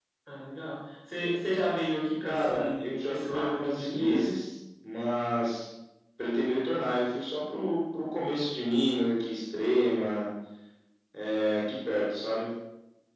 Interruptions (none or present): present